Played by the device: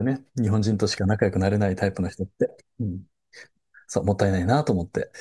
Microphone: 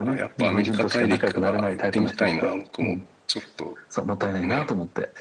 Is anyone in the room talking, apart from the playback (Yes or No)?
Yes